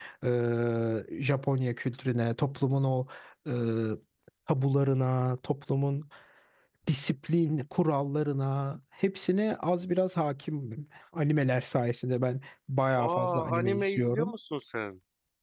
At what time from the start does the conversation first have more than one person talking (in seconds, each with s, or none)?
13.0 s